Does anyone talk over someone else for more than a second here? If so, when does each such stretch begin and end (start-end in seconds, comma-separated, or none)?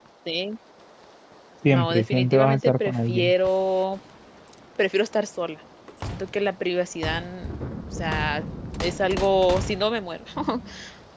1.7-3.3